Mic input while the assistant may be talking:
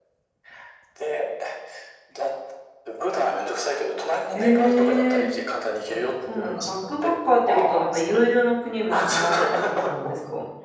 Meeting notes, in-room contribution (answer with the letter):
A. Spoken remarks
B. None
A